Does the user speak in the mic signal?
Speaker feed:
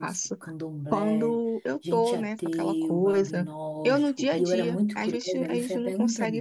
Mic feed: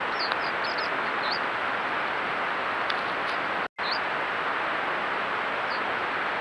No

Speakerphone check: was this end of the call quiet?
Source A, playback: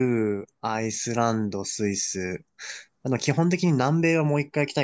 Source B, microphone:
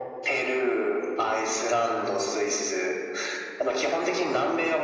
Yes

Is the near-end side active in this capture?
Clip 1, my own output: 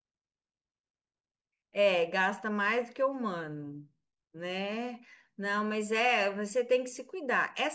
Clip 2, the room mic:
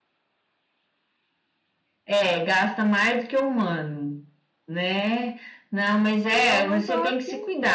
Yes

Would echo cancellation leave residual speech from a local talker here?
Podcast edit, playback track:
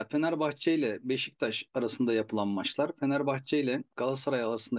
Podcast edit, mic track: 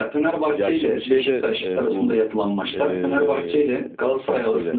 Yes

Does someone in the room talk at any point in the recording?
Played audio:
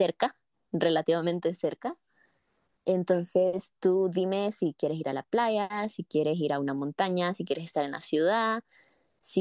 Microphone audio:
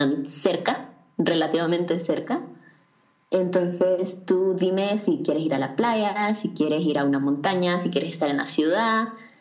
No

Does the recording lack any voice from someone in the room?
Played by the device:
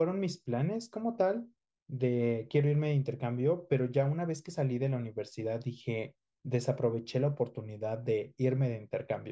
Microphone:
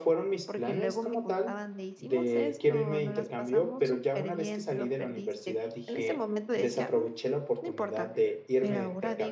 No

